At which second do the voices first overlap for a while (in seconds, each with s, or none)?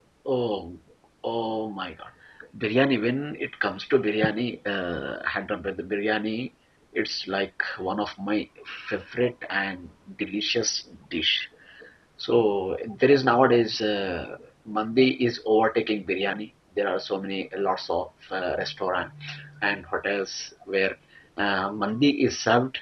none